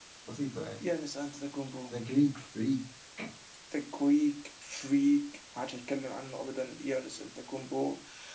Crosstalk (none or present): none